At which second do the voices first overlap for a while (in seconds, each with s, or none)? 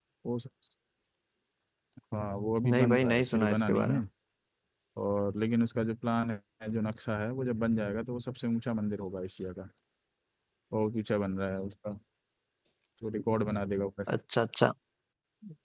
2.6 s